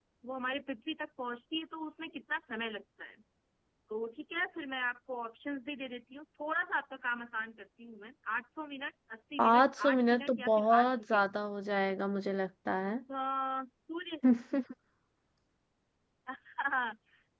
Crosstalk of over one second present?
Yes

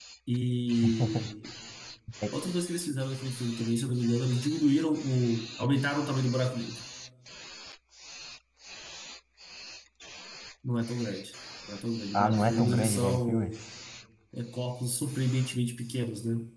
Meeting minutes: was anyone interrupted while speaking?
Yes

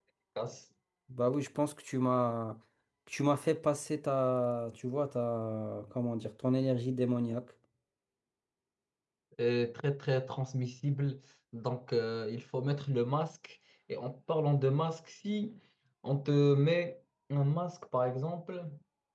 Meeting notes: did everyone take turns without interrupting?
Yes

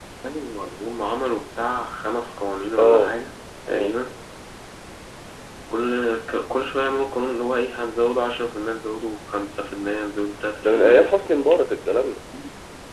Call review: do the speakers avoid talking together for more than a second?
Yes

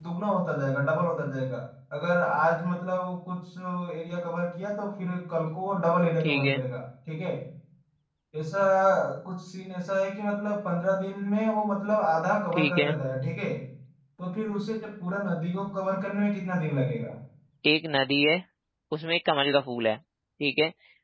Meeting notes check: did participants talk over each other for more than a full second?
No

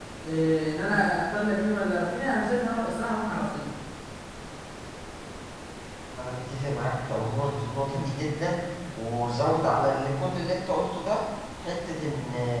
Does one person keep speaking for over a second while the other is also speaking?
No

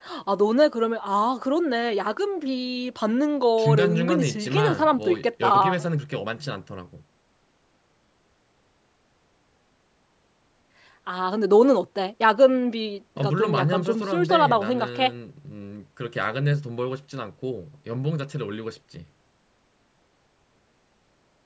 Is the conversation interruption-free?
No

